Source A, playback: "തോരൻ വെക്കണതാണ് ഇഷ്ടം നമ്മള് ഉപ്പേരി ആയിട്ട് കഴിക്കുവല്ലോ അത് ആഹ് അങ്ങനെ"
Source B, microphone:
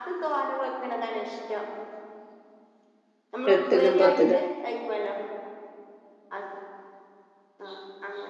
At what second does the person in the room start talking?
3.5 s

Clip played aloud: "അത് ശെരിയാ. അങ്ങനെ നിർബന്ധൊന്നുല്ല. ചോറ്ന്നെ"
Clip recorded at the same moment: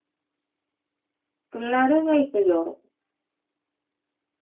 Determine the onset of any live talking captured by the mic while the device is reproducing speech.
1.5 s

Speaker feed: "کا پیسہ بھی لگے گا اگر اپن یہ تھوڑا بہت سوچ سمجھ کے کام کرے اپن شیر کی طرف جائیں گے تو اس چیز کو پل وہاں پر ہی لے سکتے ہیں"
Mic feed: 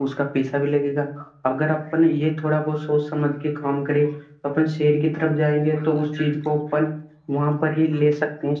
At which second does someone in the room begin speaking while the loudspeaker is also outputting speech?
none

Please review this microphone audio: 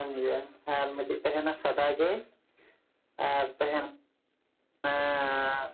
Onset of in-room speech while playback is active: none

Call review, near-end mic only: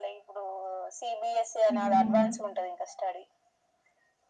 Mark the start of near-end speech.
1.8 s

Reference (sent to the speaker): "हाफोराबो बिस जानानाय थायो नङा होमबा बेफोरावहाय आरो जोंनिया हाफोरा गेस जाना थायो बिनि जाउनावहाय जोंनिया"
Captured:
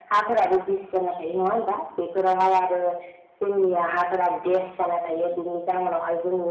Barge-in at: none

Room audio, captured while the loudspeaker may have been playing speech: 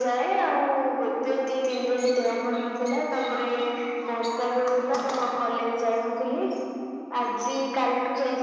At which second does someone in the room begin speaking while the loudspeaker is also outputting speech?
none

